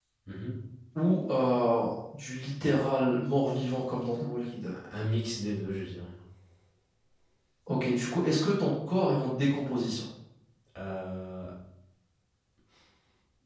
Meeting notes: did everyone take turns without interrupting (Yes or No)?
Yes